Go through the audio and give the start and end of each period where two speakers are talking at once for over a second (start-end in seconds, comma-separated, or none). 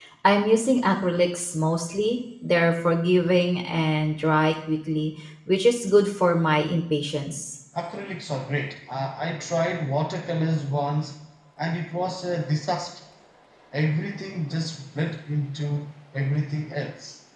none